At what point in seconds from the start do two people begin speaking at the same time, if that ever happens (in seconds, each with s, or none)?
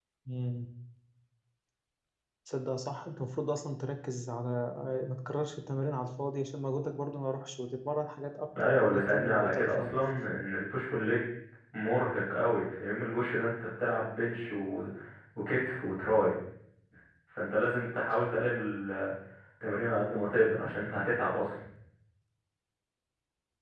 8.6 s